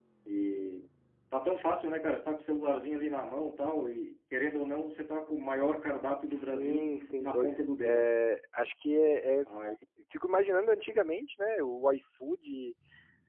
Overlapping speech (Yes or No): Yes